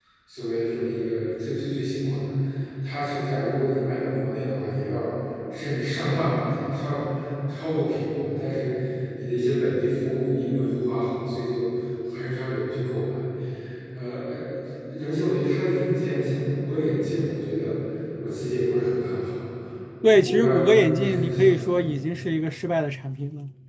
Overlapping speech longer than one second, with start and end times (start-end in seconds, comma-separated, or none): 20.0-21.6